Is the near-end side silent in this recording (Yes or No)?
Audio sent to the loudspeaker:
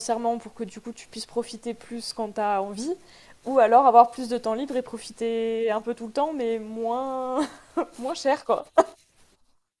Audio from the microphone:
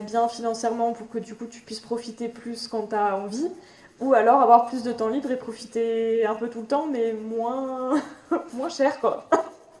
Yes